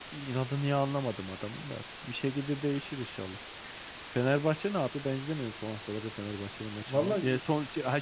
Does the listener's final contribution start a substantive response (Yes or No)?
No